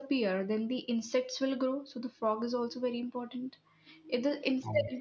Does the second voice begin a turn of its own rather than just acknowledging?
No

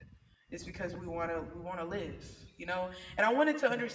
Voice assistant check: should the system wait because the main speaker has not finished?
Yes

